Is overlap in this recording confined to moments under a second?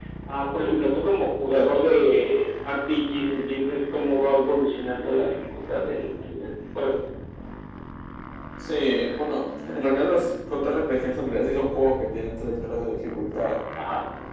Yes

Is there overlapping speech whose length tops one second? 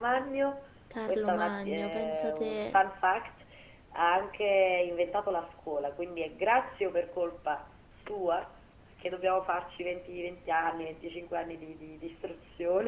Yes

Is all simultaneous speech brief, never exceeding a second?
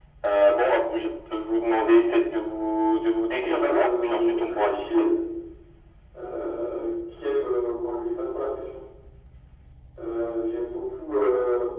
No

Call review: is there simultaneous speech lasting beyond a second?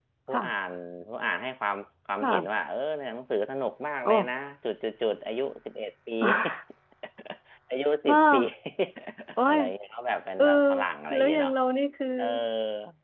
No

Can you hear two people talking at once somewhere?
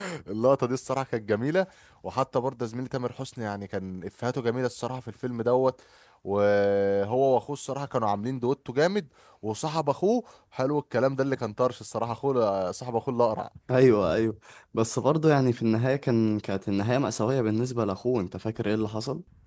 No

